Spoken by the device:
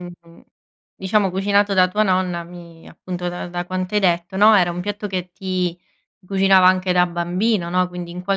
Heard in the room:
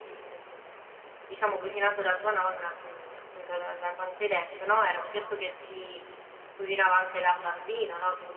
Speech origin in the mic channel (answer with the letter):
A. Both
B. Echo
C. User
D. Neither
B